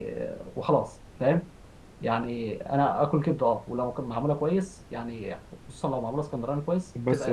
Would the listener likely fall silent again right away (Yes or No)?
No